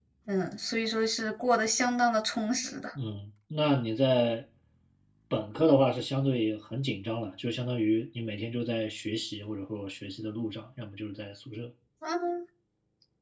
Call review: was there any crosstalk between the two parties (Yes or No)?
No